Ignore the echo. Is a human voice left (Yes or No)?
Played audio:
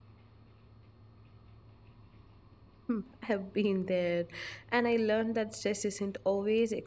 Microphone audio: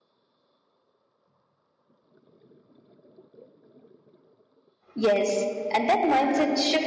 Yes